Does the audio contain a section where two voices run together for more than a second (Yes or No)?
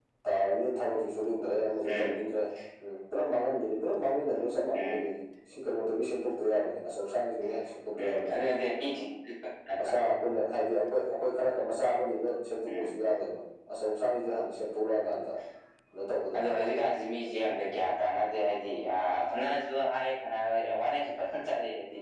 No